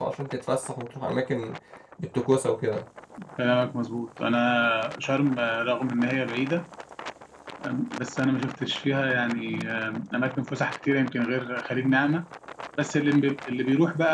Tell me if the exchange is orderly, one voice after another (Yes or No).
Yes